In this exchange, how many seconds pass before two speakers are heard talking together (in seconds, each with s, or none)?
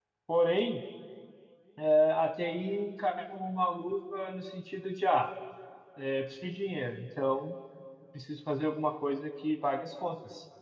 none